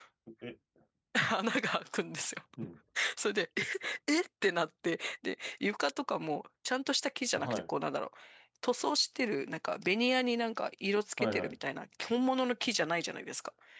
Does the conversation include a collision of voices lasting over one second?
No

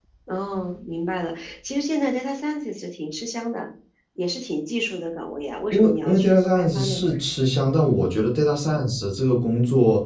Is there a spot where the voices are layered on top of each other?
Yes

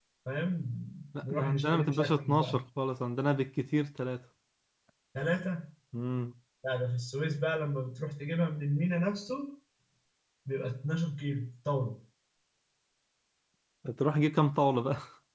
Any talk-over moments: Yes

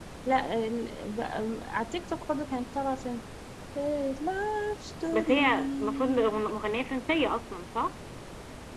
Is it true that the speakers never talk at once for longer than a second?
No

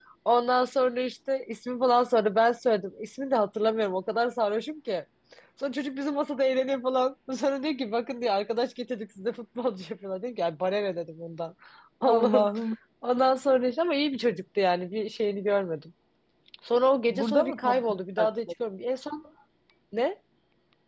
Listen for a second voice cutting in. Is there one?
Yes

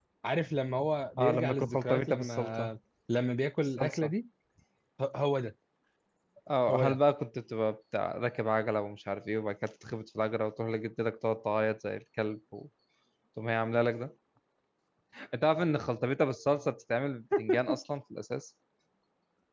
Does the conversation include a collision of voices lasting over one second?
Yes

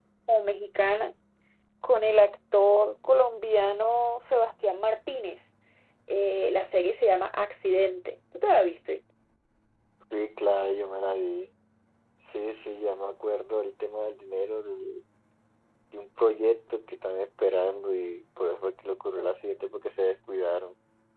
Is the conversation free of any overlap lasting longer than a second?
Yes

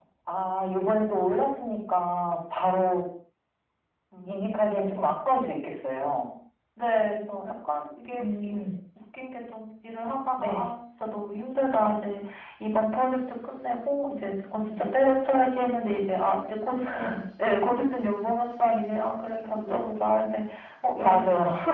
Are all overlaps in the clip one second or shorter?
Yes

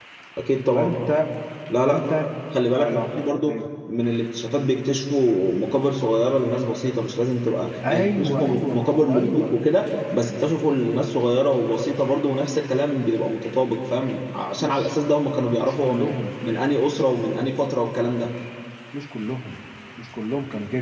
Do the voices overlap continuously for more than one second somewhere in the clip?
Yes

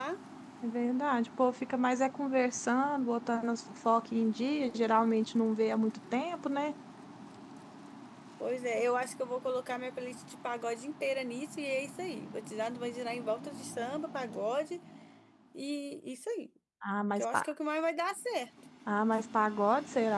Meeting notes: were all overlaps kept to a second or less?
Yes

